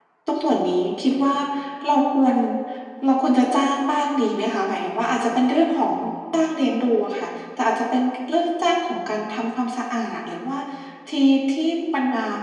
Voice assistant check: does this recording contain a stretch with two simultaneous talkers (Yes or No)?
No